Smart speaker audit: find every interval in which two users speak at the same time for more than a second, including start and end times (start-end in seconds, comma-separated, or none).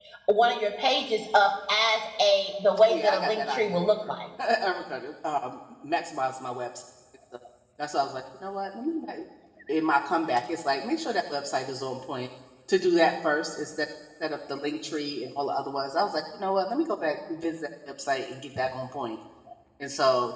2.9-4.1